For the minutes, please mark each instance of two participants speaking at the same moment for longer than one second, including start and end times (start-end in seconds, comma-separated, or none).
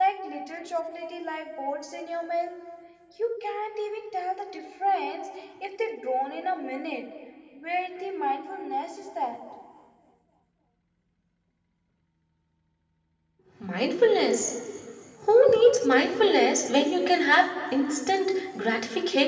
none